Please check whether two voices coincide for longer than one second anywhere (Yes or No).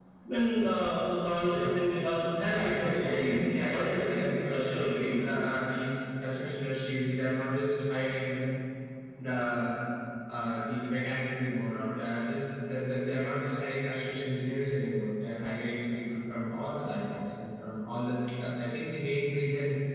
Yes